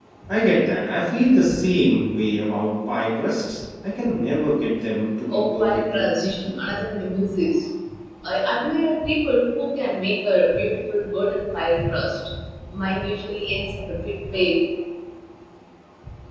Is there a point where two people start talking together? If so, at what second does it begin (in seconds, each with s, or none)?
5.3 s